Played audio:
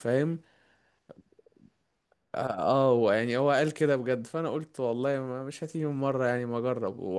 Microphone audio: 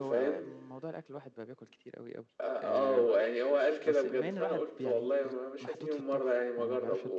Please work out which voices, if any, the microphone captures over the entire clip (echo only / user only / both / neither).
both